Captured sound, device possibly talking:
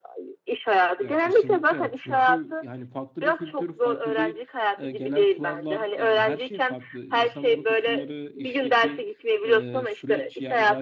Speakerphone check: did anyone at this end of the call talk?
Yes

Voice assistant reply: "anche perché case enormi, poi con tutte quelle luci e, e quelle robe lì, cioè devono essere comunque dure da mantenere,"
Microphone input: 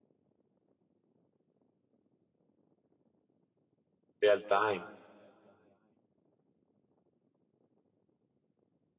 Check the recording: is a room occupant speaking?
Yes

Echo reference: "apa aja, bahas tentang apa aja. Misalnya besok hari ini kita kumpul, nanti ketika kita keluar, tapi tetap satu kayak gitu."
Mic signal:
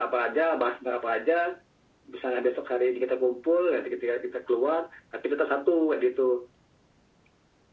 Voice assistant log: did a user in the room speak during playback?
No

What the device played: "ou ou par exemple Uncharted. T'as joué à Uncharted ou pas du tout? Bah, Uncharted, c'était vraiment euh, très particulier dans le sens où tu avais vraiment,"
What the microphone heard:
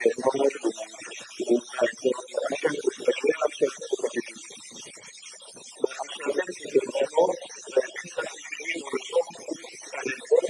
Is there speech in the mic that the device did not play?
No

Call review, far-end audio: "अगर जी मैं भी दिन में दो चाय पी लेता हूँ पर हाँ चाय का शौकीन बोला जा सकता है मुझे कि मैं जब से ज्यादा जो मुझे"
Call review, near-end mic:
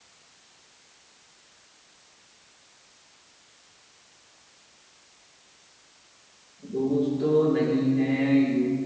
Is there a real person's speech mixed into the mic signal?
Yes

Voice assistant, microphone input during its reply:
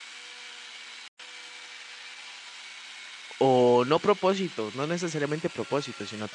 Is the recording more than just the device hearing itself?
Yes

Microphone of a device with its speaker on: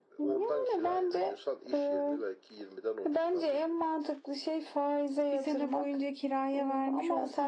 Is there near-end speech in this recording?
Yes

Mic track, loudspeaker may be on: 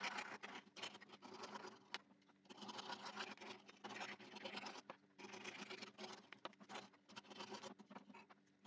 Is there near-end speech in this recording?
No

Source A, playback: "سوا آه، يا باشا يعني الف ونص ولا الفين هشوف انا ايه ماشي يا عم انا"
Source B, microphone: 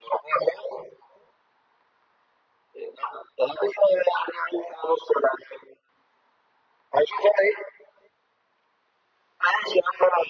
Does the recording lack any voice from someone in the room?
Yes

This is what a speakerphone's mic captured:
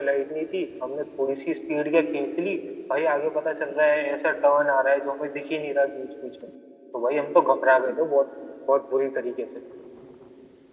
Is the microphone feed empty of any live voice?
Yes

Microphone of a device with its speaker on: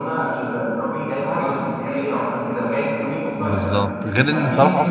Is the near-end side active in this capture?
Yes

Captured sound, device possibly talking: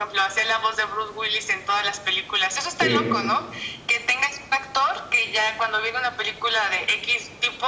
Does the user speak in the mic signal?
Yes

